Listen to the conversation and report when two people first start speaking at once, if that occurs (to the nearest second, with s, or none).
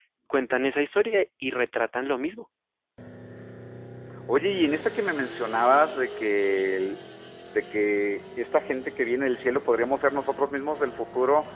none